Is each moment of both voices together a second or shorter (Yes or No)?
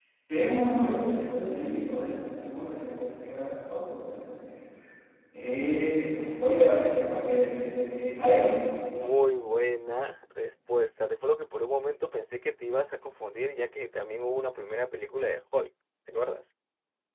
Yes